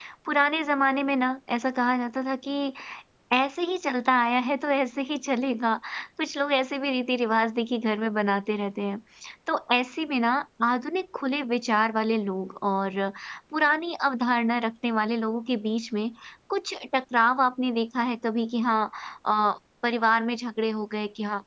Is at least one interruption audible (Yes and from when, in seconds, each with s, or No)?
No